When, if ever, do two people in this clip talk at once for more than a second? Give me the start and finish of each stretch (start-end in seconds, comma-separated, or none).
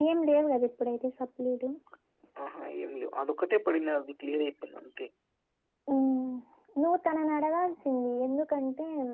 none